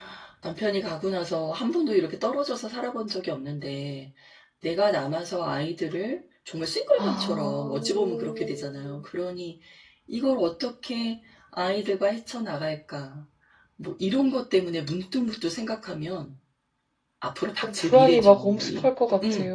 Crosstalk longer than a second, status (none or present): present